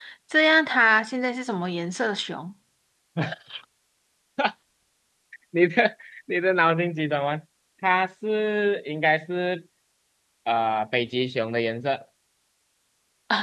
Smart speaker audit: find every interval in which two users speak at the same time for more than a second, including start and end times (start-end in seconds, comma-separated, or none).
none